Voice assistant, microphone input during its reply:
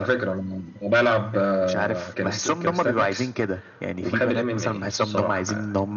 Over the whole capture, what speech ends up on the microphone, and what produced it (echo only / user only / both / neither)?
echo only